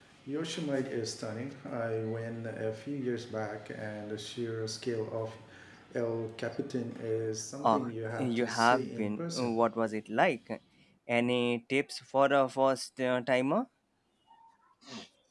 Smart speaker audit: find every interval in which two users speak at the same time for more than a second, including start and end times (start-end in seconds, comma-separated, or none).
7.6-9.5